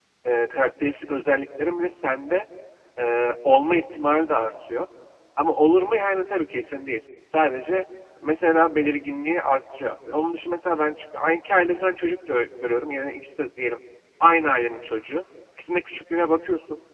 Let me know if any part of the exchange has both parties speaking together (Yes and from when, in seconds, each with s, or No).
No